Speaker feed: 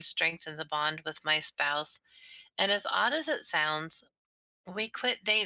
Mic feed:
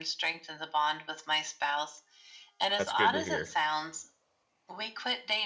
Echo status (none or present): present